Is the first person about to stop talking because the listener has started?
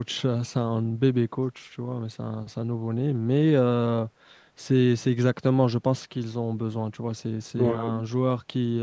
No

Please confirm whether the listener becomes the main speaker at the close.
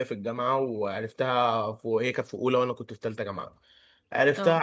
No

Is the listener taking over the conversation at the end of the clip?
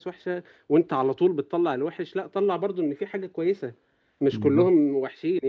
No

